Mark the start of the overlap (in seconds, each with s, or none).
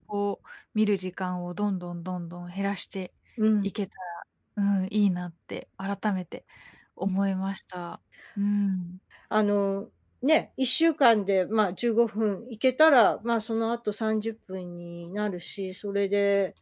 none